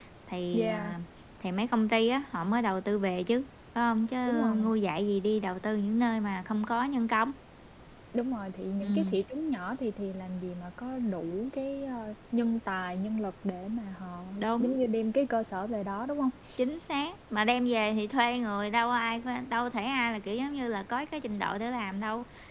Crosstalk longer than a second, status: none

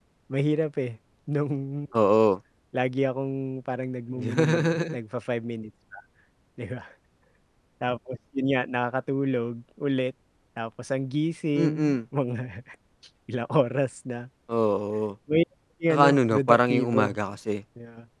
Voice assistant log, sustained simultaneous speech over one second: present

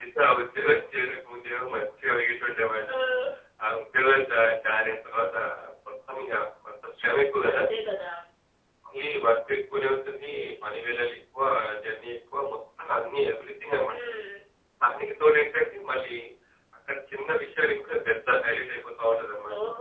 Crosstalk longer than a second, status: none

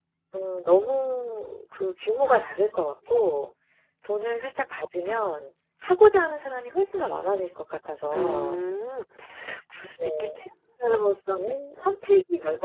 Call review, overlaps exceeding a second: none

